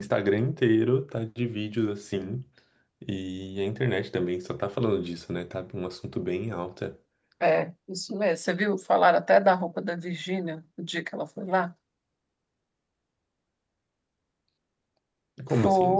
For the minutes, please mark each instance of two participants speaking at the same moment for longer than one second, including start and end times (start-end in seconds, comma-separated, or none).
none